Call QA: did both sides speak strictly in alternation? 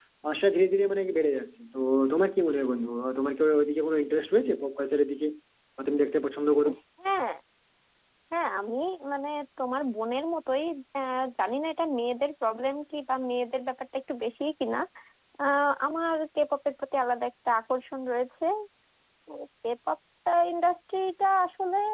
Yes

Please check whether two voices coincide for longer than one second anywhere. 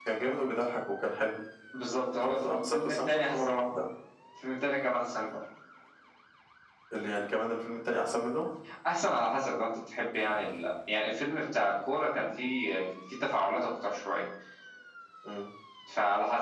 Yes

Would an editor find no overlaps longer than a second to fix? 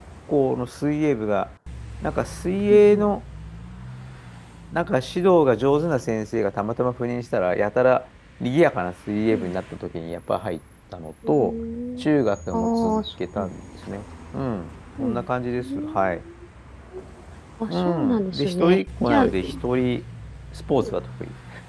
No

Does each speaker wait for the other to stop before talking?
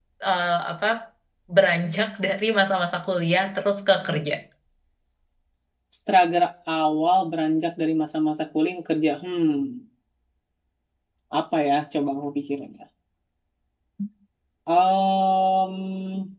Yes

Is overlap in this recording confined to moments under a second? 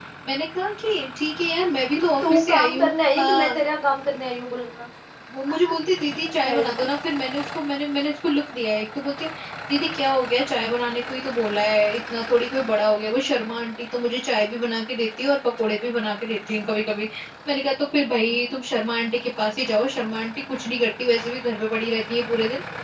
No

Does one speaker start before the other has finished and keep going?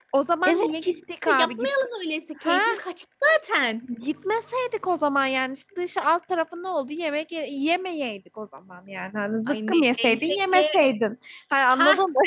Yes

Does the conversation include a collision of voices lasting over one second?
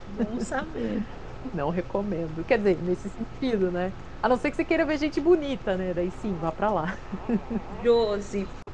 No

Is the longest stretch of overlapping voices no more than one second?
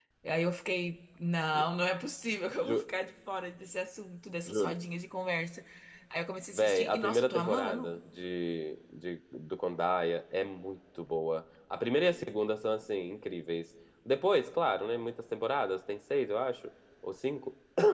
No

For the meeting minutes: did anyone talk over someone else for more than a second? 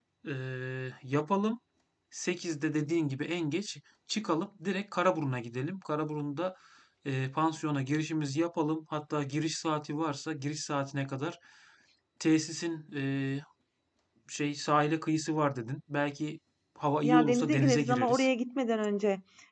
Yes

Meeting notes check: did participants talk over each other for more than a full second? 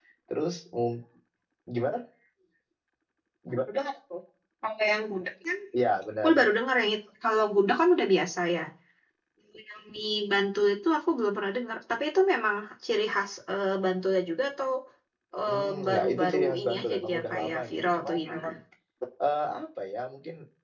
Yes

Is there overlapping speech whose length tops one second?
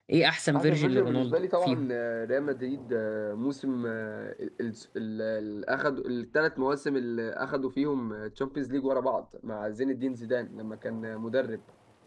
Yes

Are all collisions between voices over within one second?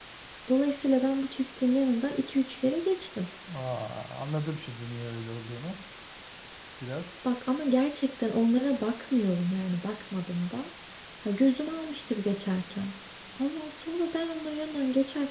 Yes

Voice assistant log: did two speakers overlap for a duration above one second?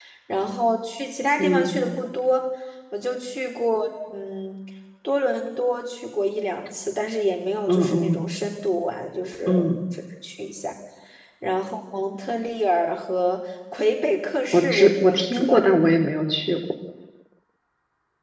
Yes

